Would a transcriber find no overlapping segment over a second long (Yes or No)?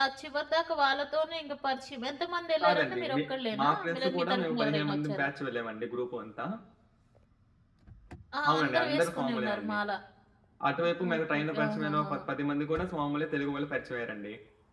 No